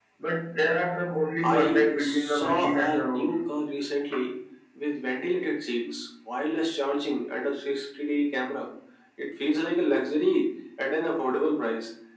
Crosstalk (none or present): present